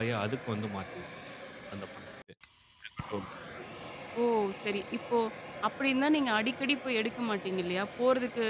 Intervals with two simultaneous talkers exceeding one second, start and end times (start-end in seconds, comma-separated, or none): none